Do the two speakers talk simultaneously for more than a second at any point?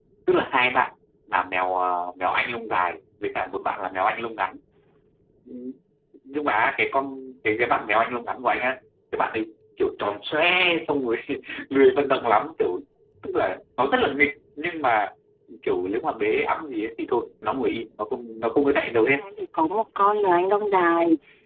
No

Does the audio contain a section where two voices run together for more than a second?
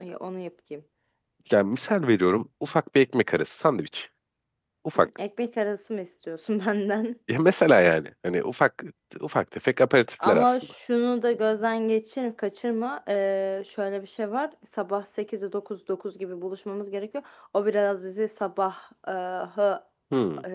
No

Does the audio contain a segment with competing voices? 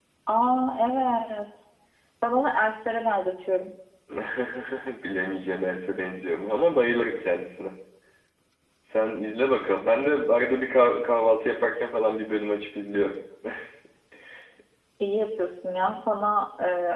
No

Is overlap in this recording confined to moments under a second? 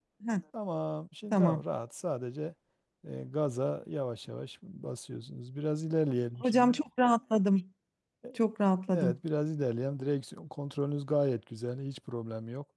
Yes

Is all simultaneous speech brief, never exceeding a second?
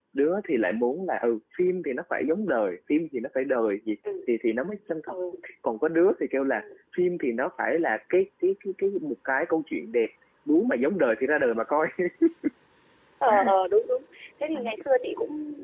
Yes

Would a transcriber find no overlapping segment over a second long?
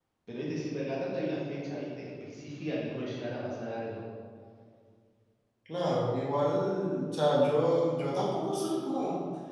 Yes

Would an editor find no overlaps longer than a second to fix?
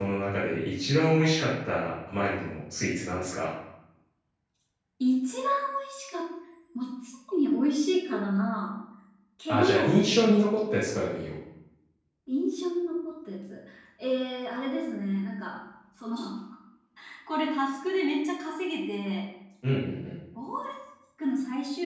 Yes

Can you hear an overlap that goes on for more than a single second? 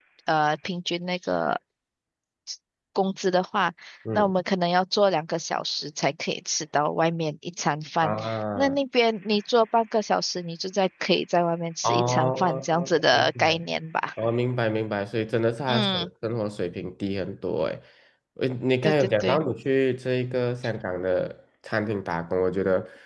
Yes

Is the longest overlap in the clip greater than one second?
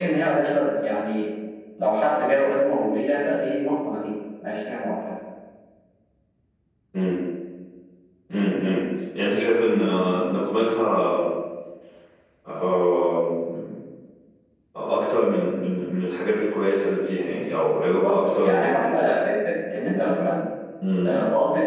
Yes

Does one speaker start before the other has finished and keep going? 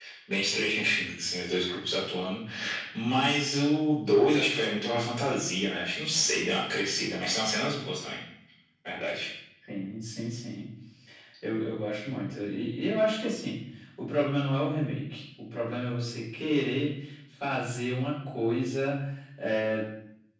No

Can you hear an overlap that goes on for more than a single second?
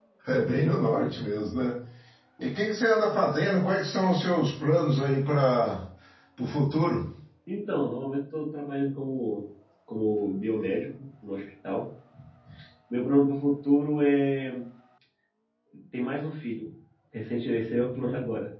No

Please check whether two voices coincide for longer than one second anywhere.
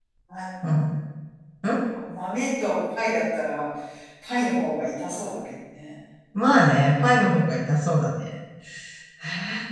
No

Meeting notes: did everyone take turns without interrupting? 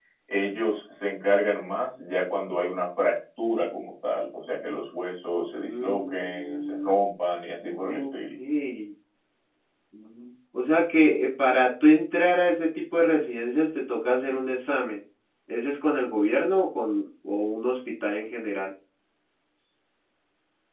No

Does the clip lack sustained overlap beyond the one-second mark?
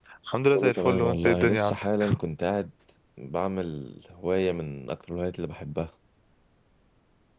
No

